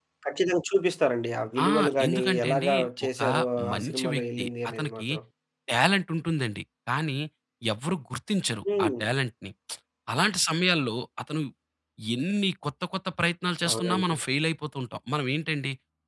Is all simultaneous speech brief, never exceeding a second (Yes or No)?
No